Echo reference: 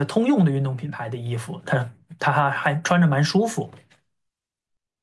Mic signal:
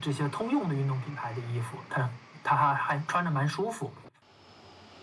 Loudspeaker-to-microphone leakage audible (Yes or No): Yes